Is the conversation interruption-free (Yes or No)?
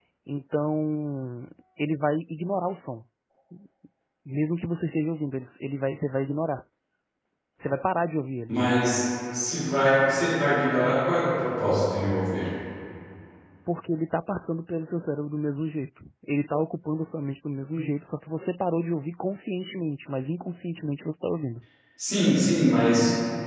Yes